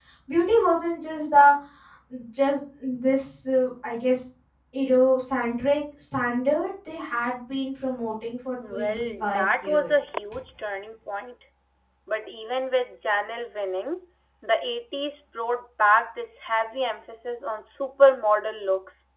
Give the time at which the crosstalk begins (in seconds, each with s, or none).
8.6 s